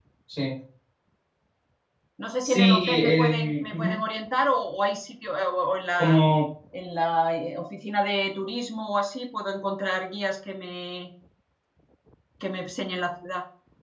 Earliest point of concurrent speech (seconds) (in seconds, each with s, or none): 2.4 s